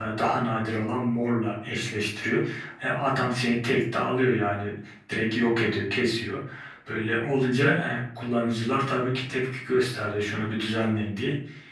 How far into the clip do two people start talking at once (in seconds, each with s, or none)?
none